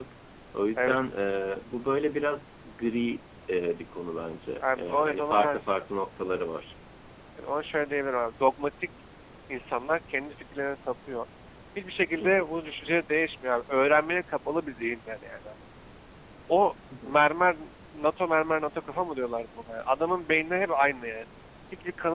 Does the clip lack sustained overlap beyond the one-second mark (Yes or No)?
No